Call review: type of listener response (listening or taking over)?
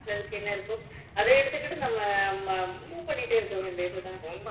taking over